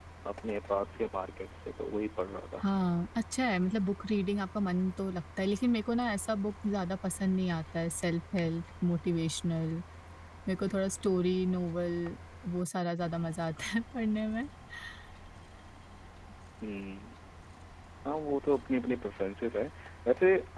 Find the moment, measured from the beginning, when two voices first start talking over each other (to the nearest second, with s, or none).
none